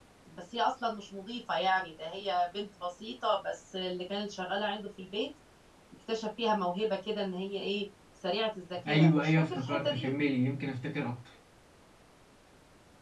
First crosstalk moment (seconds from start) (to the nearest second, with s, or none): 9 s